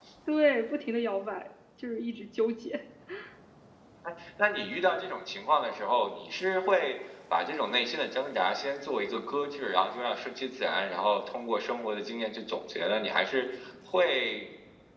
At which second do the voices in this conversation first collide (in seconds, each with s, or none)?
none